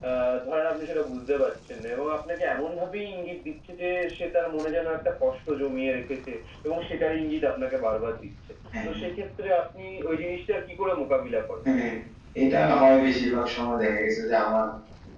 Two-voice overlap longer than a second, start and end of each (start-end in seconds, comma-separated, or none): none